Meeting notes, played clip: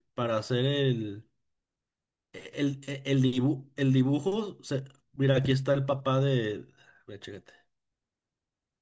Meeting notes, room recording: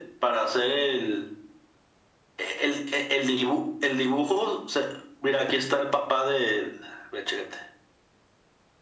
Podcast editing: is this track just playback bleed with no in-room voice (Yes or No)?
Yes